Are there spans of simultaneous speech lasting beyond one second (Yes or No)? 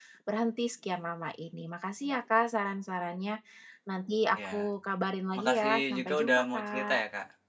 Yes